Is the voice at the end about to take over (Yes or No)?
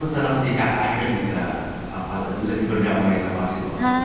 Yes